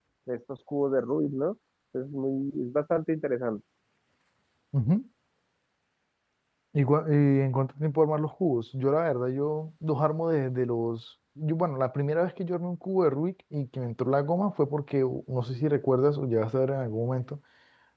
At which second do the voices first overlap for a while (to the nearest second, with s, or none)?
none